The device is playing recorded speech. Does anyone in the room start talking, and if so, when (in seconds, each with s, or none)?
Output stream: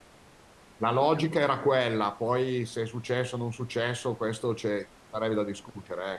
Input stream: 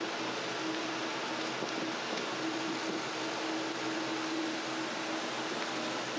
none